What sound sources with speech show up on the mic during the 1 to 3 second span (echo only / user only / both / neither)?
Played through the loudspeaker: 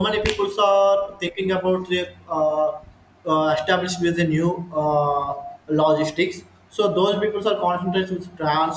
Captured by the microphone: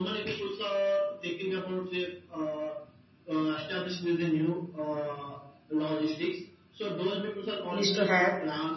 echo only